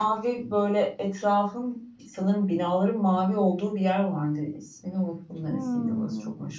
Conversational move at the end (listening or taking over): taking over